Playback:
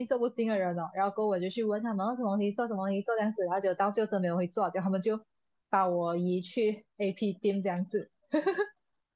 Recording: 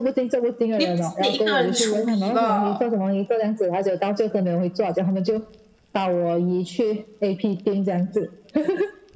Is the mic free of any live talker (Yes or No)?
No